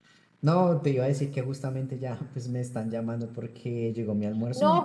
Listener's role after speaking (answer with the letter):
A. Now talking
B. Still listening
A